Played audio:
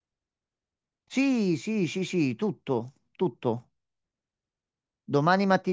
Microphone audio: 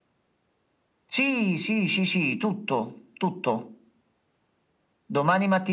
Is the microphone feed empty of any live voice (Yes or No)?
Yes